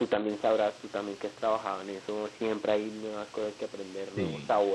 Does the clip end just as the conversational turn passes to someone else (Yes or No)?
No